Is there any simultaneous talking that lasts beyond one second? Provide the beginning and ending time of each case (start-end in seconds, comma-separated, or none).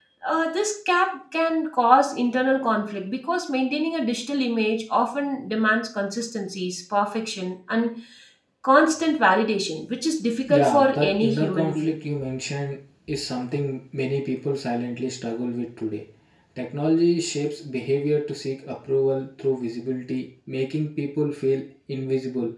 10.5-12.0